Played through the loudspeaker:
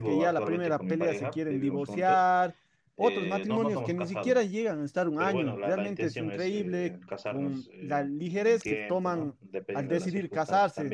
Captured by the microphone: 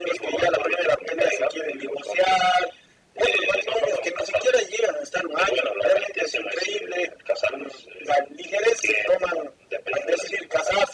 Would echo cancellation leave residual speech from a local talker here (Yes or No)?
No